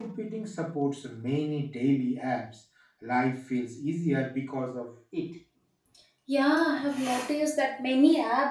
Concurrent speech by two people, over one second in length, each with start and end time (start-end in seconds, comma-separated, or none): none